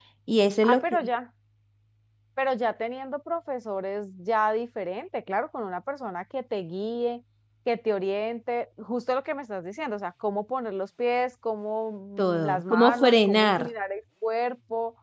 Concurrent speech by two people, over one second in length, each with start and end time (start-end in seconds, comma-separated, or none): 12.4-13.6